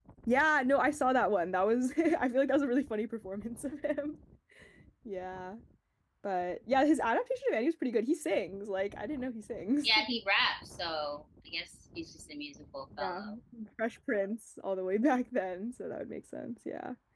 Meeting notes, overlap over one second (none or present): none